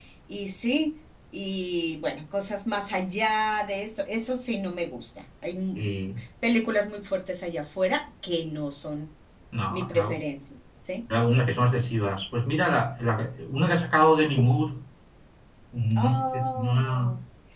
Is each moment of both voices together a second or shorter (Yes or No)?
No